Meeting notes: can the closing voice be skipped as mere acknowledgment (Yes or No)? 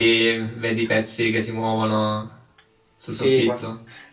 No